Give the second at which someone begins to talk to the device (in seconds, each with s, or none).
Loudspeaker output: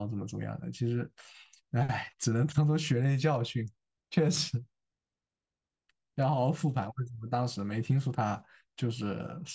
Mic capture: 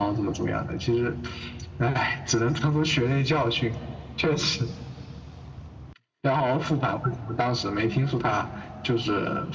none